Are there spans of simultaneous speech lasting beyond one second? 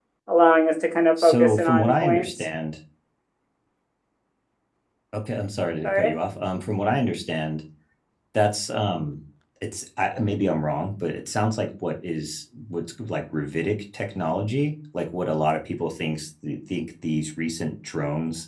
Yes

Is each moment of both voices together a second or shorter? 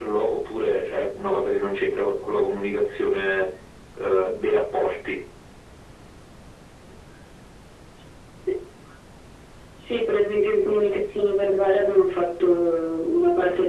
Yes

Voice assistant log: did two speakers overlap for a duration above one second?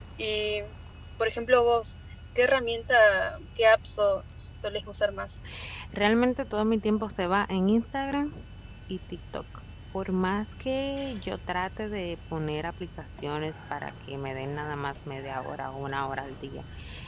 No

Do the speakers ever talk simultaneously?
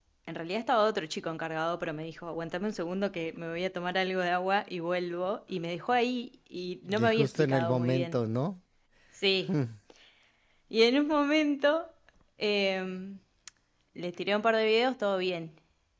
Yes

